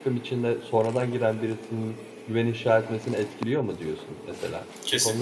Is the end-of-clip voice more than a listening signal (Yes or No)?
Yes